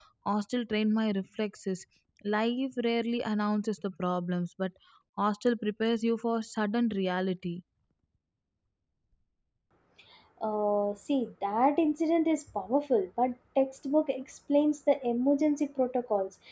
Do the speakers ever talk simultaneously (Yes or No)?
No